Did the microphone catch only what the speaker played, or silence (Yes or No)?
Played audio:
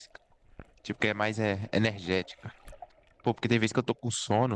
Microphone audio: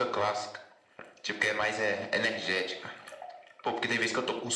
Yes